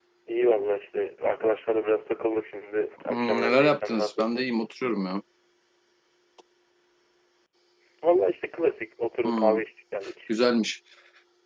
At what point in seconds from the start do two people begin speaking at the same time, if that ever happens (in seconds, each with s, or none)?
3.1 s